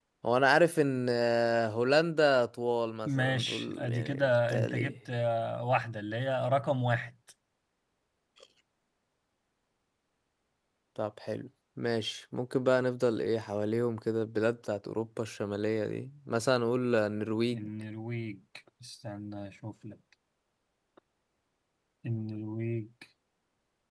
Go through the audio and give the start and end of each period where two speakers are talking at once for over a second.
3.0-5.0

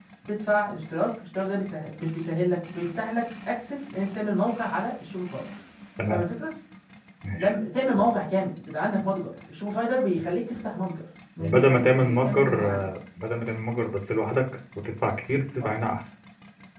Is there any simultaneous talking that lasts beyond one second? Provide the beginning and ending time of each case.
11.4-12.9

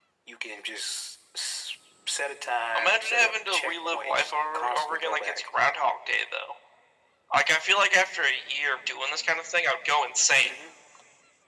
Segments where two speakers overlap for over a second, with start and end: 2.8-5.5

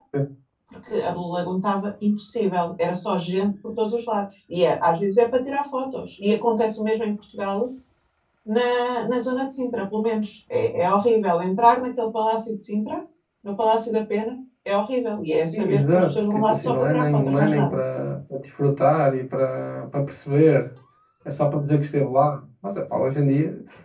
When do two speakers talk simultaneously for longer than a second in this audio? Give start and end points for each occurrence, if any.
15.5-17.7

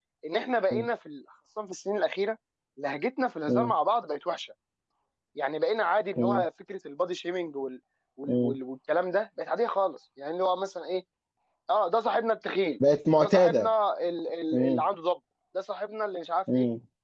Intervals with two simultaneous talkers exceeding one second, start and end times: none

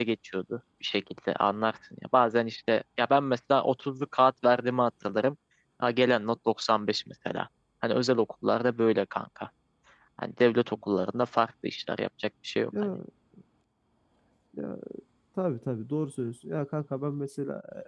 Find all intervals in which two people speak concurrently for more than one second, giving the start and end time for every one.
none

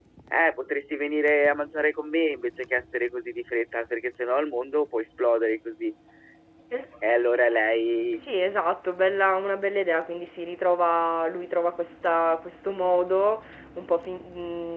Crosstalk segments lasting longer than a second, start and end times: none

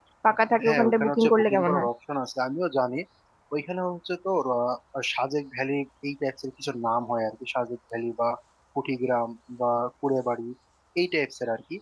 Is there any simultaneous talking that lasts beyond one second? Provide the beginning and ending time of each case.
0.7-1.9

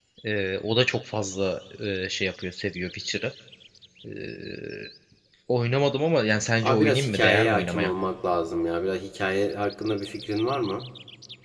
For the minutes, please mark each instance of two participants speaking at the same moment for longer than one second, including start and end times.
6.6-7.9

